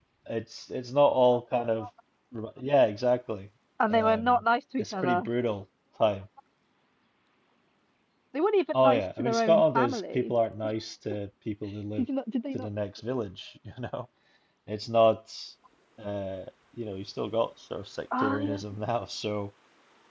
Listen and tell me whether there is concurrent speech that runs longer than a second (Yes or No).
Yes